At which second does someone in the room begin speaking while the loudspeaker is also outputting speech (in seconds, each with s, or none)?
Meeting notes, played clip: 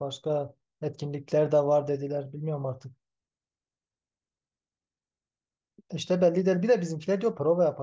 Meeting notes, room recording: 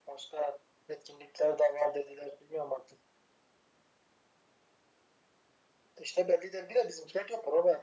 none